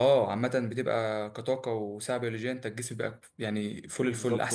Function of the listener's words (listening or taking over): taking over